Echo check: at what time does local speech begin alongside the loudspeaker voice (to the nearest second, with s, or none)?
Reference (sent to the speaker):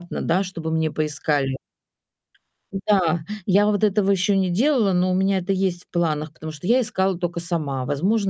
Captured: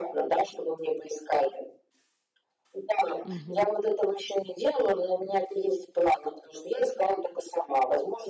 3 s